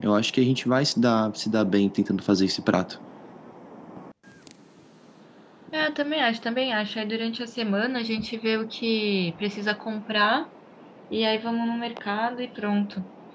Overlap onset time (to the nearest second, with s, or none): none